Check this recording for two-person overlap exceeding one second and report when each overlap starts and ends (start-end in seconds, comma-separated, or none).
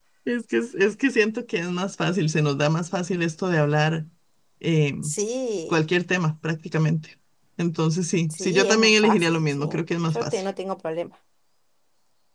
8.3-9.6